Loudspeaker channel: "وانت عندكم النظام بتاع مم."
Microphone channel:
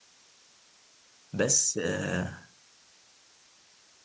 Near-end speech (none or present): present